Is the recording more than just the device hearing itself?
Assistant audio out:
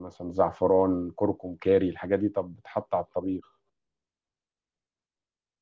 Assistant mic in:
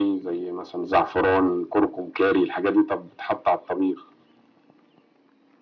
No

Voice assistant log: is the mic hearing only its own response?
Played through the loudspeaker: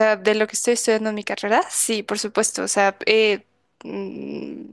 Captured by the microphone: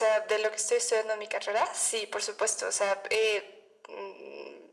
Yes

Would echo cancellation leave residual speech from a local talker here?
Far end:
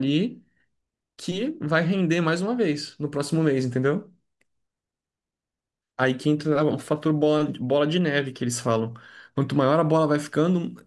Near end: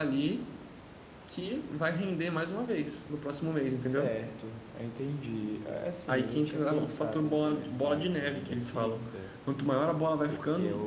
Yes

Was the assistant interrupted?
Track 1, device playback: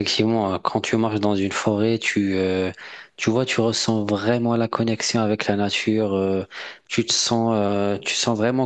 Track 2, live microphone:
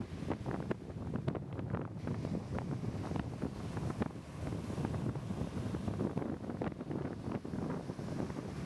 No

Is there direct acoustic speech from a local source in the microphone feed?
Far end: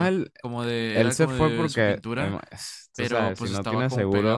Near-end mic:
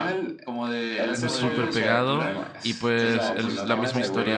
Yes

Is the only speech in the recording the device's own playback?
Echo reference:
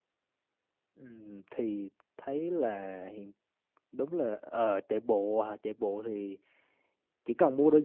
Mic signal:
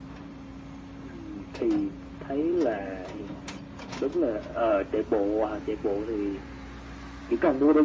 Yes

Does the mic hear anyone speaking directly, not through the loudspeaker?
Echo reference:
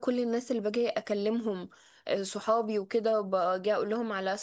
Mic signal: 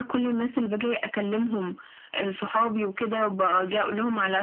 No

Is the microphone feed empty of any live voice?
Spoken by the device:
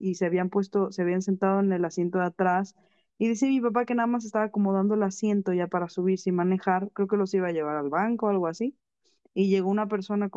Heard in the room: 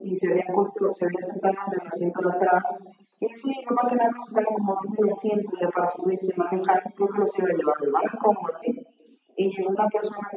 Yes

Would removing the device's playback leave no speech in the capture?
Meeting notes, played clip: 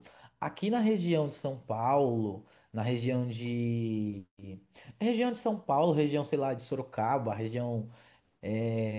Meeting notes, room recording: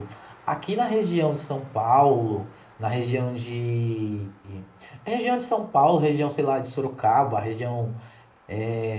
Yes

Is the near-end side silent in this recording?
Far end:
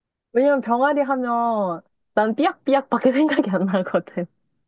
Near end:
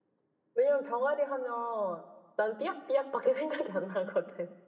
Yes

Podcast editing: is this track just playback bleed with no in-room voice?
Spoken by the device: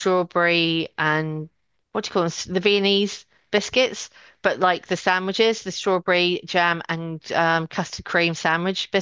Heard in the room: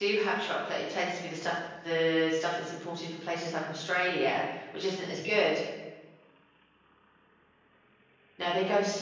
No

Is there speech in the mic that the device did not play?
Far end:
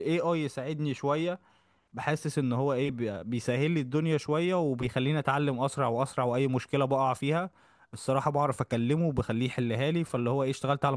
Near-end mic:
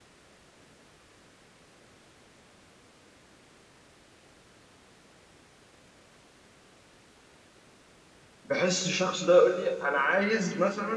Yes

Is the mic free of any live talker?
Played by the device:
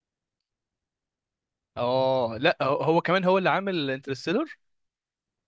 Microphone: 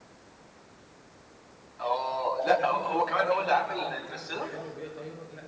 No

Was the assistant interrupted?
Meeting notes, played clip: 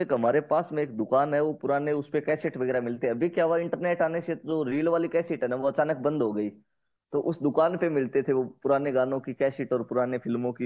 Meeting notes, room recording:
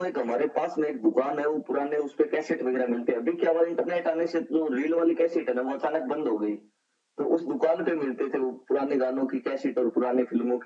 No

